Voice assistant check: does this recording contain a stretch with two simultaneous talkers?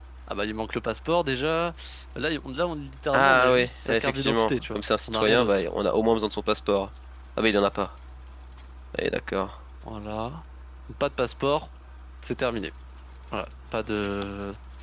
Yes, from 3.1 s

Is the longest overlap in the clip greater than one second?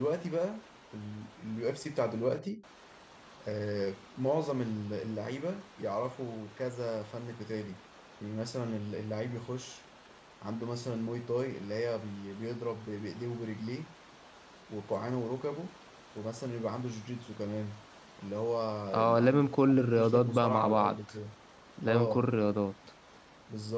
Yes, from 19.0 s

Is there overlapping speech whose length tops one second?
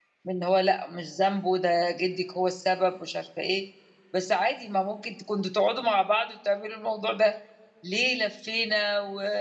No

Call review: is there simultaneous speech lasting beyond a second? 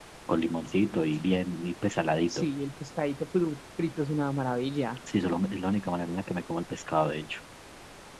No

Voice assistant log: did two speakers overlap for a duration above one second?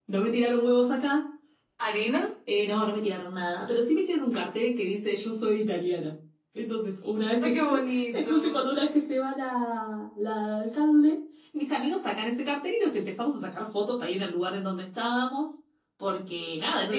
Yes, from 7.4 s

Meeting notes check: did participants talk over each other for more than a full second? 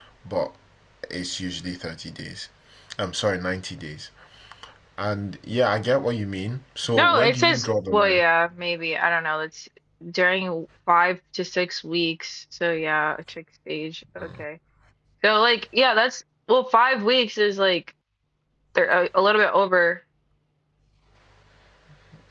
Yes, from 7.0 s

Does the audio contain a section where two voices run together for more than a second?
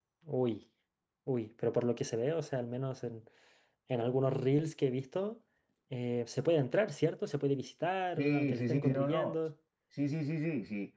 Yes, from 8.2 s

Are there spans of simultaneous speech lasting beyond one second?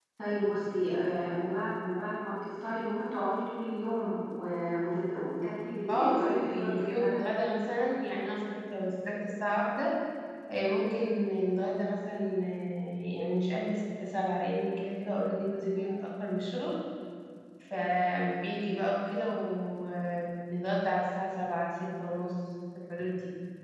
Yes, from 5.9 s

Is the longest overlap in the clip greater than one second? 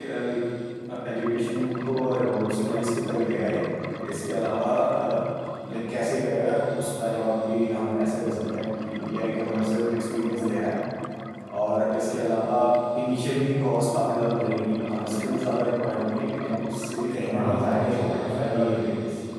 Yes, from 17.3 s

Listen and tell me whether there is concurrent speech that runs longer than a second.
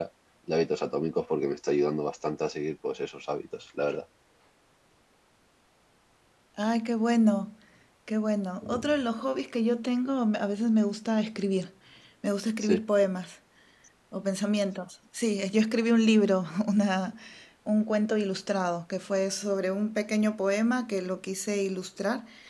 No

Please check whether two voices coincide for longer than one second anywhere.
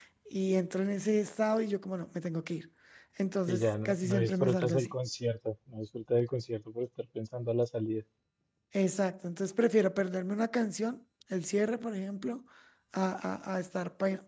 Yes, from 3.5 s

